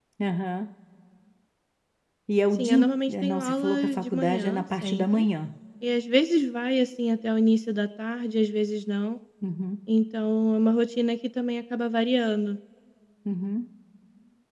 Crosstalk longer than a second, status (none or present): present